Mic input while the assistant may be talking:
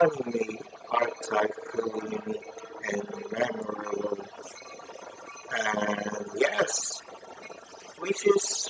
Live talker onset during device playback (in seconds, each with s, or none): none